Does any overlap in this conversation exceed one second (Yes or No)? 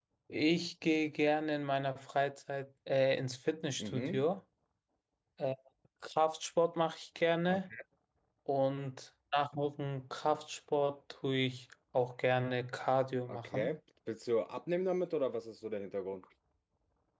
No